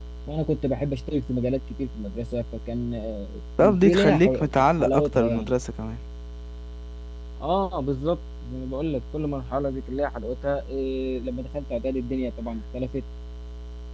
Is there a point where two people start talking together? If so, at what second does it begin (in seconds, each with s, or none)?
3.8 s